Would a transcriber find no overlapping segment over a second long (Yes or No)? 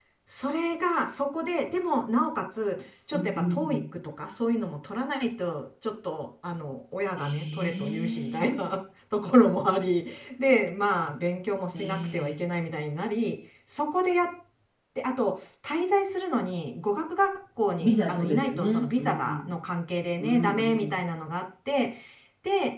No